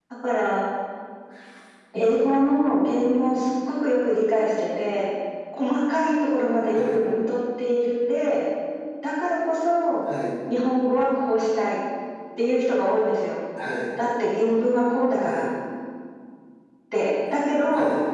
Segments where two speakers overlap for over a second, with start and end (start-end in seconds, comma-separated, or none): none